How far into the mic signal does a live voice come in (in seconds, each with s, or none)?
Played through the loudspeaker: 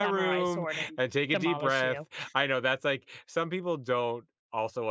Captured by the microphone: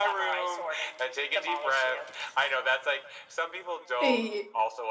4.0 s